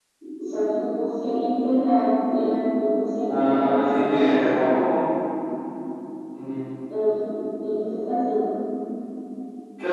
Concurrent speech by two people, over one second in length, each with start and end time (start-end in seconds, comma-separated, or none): 3.3-4.9